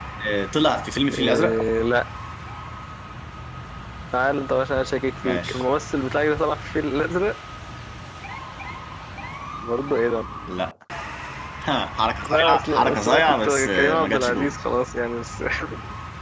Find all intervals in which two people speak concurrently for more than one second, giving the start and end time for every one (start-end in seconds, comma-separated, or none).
12.3-14.6